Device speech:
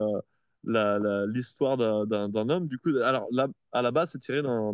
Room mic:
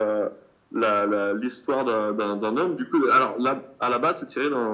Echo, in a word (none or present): present